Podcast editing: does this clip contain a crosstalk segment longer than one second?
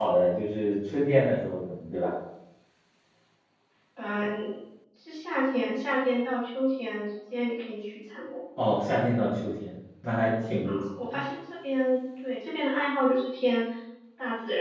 No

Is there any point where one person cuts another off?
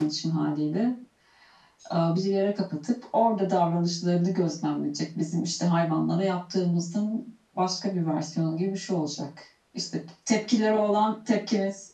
No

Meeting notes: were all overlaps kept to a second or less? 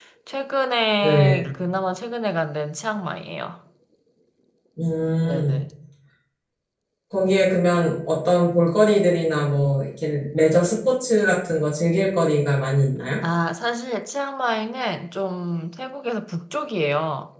Yes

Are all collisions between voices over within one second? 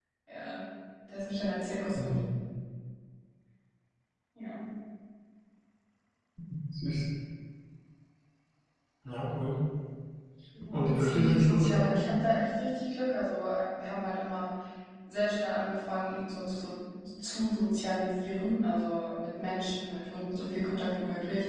No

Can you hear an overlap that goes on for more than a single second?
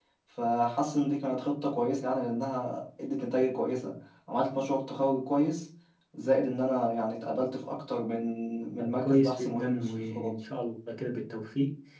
Yes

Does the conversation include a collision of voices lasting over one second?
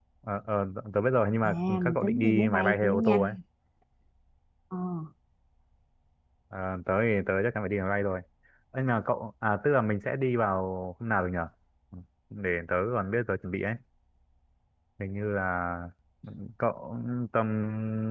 Yes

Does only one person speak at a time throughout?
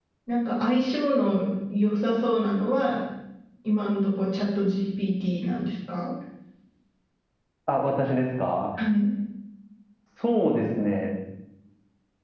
Yes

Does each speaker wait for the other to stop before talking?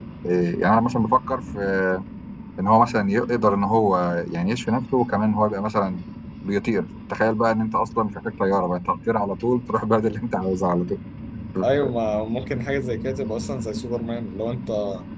Yes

